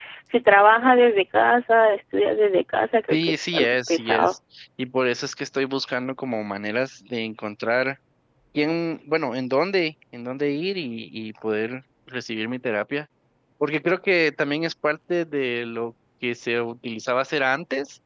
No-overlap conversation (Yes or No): No